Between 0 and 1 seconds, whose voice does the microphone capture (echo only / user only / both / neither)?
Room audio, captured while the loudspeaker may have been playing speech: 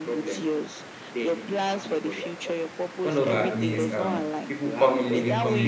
echo only